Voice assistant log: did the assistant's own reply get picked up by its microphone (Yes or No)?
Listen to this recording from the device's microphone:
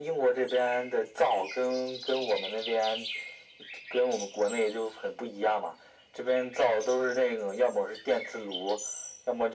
Yes